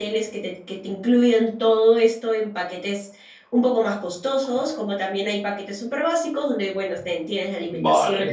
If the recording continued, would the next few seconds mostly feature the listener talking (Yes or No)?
No